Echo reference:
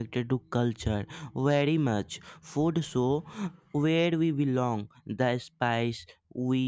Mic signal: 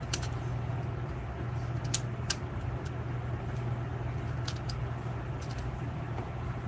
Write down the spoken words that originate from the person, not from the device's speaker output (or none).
none